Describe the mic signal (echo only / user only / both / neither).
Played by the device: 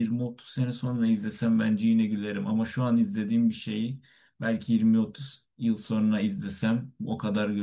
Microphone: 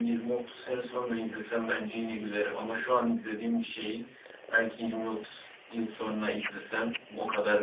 echo only